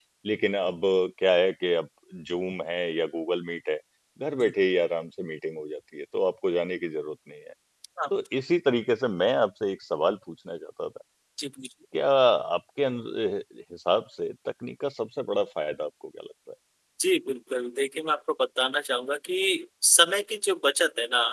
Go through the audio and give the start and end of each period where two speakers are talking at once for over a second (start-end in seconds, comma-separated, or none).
none